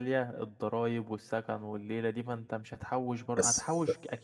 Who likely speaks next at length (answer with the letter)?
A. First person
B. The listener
A